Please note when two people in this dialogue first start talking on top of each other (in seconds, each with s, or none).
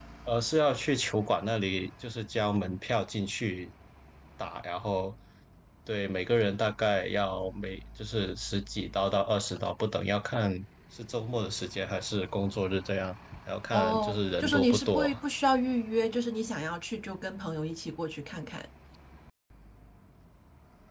13.7 s